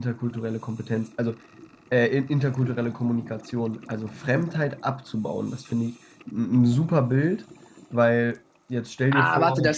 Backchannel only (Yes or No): No